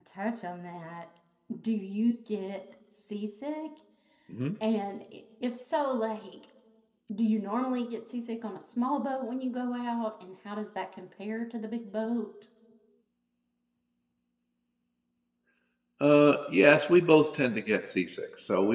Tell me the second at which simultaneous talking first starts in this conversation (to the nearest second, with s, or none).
none